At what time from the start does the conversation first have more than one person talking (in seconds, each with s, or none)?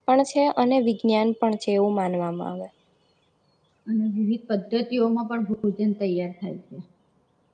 none